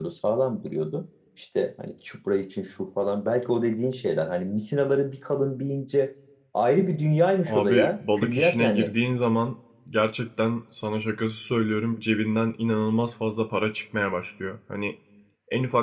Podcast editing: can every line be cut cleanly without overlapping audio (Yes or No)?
No